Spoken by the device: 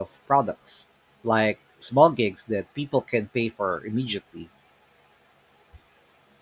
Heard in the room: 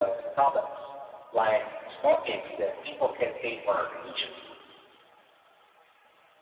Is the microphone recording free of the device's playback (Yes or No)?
No